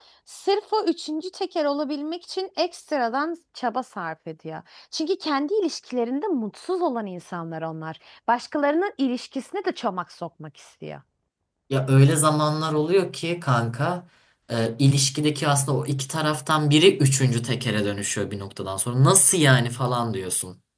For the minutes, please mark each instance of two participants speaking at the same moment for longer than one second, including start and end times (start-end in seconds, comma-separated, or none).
none